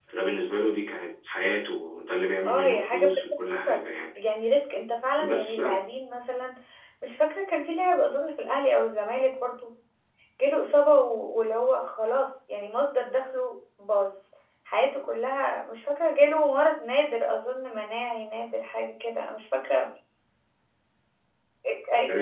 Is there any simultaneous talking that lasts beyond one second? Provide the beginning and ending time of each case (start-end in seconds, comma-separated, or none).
2.4-3.9